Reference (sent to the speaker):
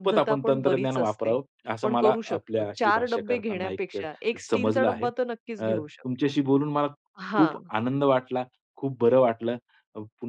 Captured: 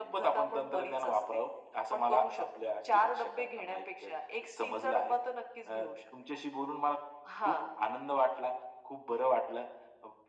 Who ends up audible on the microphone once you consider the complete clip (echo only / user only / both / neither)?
echo only